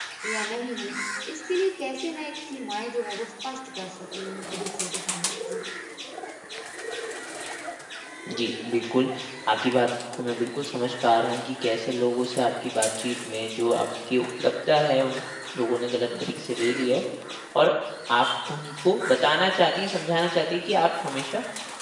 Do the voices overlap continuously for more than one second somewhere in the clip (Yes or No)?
No